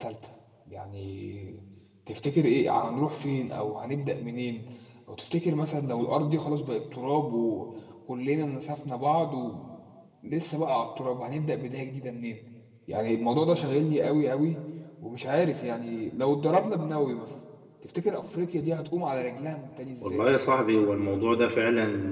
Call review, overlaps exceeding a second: none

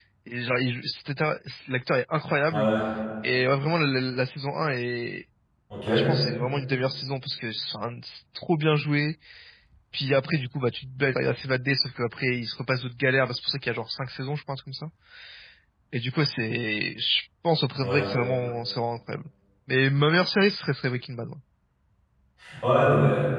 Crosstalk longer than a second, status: none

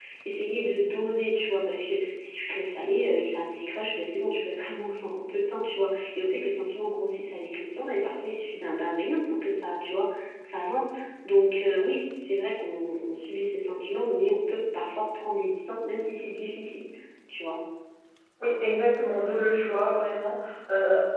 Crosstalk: none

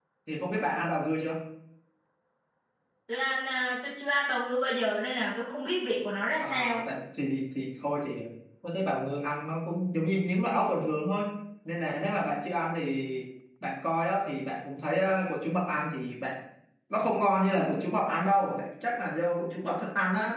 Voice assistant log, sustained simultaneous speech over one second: none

